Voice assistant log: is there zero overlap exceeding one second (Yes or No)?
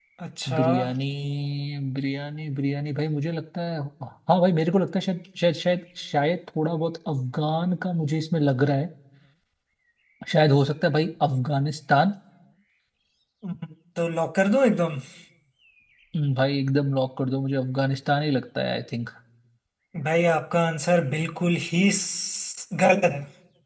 Yes